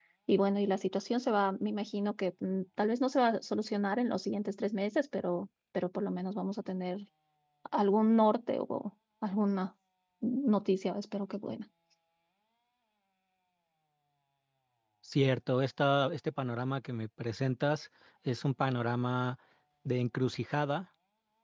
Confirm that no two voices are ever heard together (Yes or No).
Yes